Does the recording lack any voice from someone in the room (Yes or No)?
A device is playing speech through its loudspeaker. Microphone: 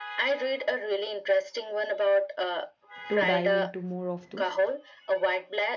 No